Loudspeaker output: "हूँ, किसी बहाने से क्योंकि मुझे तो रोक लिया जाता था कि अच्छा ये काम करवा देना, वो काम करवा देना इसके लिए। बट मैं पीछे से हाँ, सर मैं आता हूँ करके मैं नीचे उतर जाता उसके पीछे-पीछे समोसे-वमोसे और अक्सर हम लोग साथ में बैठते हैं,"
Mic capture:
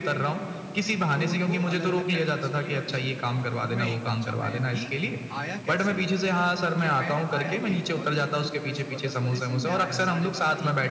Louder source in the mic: echo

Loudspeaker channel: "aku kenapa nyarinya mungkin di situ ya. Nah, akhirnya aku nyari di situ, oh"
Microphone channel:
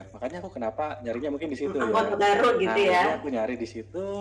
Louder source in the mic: user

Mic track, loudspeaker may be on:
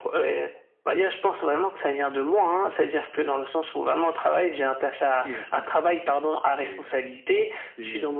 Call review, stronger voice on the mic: echo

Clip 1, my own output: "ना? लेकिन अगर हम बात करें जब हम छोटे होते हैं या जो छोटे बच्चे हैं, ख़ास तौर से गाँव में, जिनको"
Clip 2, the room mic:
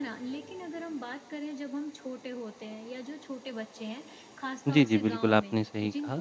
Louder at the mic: user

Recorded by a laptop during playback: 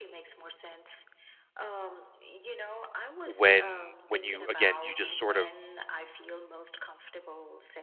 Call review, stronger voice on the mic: user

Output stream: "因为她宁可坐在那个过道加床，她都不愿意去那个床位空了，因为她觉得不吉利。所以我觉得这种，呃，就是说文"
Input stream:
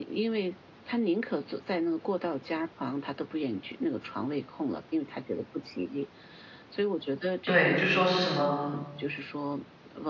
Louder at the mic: user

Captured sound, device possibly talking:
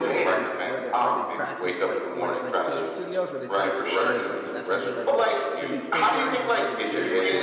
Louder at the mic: echo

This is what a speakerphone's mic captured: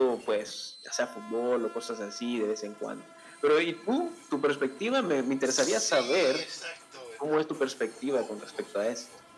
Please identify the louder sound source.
echo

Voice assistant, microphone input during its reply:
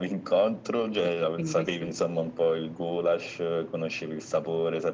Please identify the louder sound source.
echo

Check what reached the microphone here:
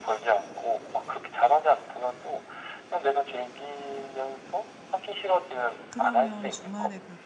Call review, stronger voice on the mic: echo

